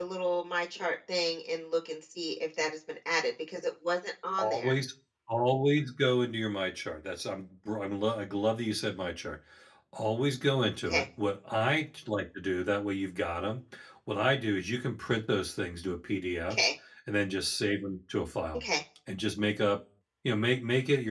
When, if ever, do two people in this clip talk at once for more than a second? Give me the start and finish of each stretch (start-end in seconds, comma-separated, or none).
none